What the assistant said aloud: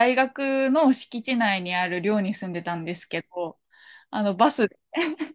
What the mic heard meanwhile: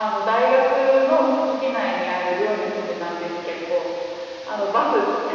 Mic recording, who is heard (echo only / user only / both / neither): echo only